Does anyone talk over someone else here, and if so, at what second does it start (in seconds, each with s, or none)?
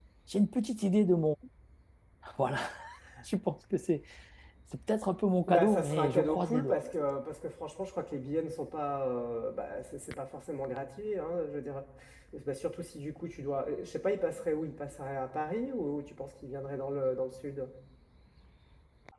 5.5 s